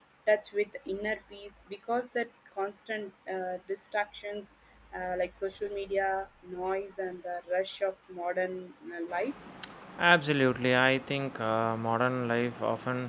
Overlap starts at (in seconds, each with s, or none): none